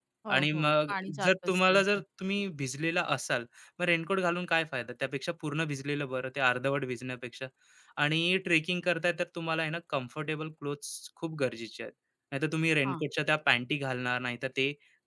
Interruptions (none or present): present